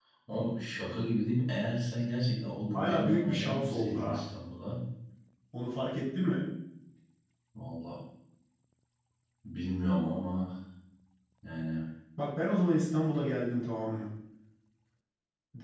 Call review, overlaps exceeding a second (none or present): present